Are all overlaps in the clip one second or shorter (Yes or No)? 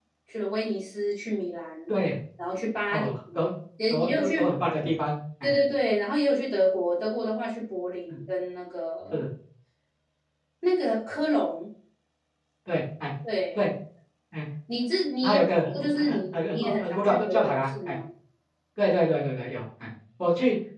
No